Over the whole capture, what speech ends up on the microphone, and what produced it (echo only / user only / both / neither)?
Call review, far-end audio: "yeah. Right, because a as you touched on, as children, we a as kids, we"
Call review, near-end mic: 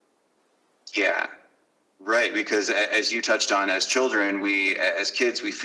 echo only